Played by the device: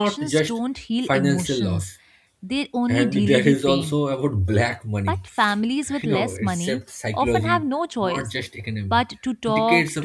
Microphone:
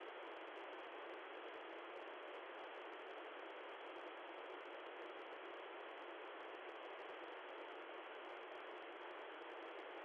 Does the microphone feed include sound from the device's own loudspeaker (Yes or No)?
No